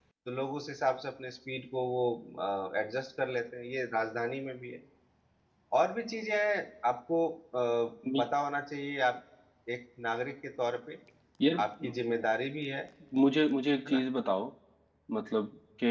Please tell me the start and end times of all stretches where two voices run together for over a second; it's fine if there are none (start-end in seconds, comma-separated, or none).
none